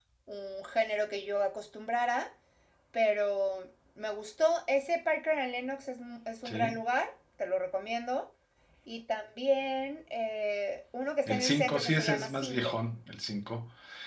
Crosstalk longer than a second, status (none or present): present